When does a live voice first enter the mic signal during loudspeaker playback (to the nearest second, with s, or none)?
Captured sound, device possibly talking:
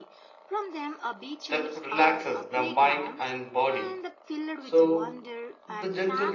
none